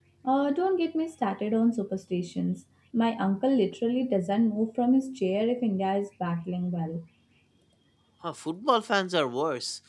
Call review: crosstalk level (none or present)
none